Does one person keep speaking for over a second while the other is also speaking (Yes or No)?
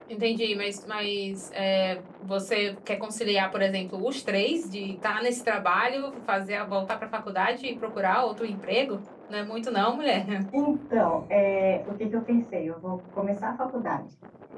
No